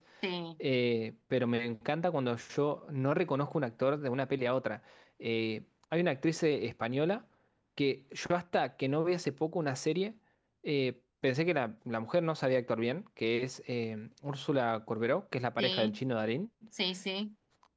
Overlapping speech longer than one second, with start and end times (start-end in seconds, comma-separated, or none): none